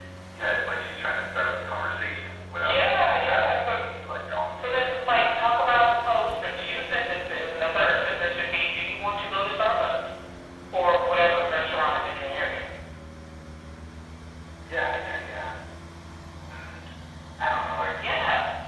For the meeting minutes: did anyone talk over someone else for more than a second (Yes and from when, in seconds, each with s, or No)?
Yes, from 2.6 s